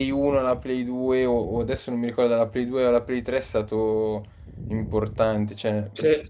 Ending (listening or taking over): listening